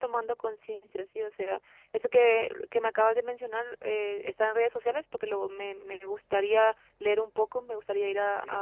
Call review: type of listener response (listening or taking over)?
taking over